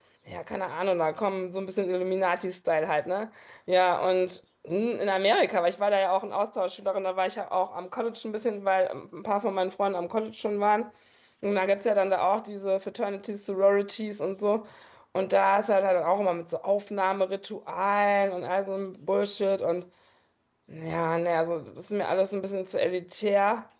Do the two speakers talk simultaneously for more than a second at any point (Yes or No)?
No